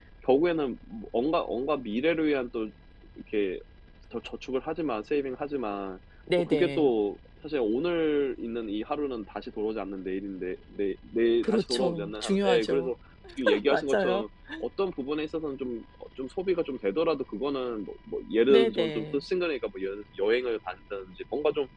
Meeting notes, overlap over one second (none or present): present